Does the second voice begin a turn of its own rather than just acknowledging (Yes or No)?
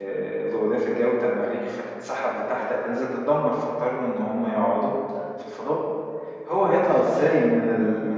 No